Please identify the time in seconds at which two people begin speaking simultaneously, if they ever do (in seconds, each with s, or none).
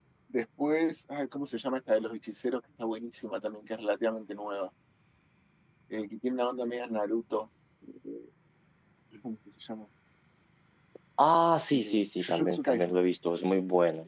11.7 s